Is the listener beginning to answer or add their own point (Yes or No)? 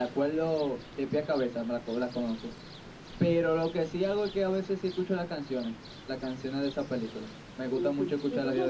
Yes